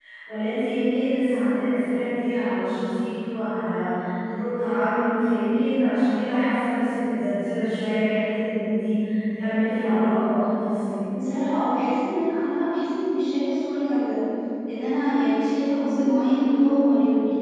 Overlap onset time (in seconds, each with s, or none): none